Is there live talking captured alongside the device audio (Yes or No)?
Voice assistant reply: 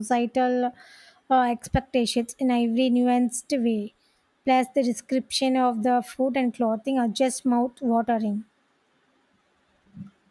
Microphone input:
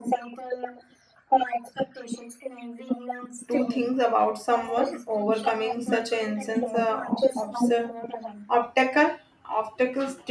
Yes